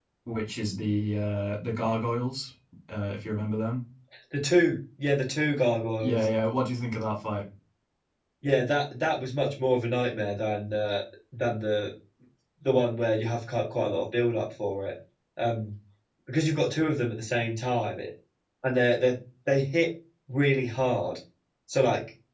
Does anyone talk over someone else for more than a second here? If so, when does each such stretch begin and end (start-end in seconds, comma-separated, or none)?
none